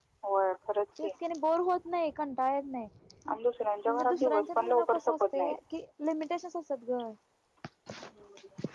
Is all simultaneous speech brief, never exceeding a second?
No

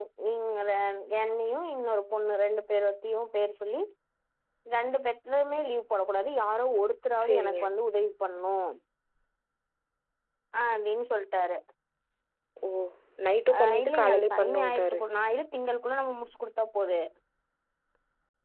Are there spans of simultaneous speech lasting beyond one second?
Yes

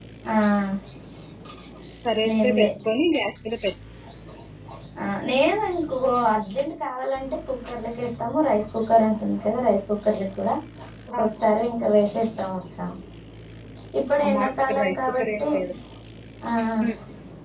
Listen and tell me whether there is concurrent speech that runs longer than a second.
Yes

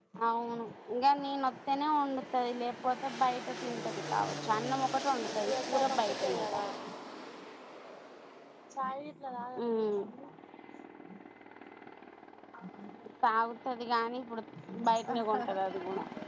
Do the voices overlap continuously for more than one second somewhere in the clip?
Yes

